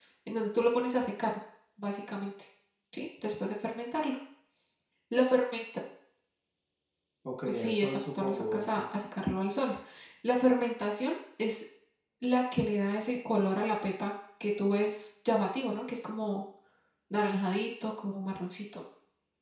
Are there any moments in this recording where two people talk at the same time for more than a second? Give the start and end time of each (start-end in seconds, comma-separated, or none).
7.5-8.8